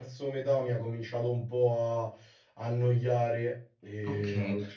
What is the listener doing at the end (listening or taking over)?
taking over